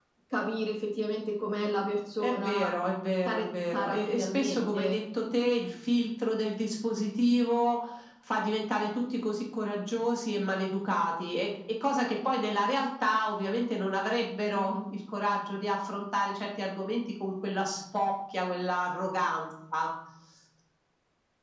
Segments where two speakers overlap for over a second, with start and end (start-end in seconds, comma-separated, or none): 3.2-5.0